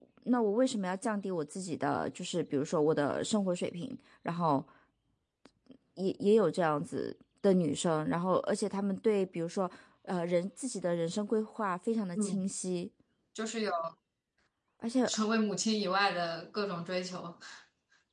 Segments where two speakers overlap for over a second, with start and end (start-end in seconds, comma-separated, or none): none